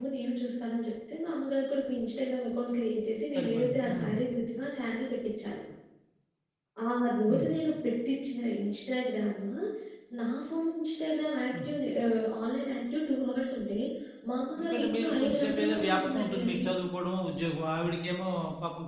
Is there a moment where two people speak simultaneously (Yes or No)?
Yes